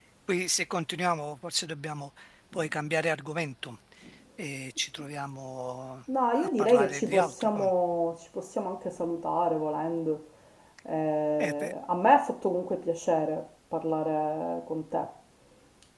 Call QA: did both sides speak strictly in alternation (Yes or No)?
No